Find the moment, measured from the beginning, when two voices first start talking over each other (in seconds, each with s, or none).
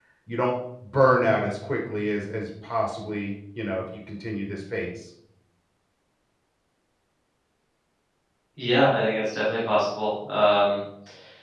none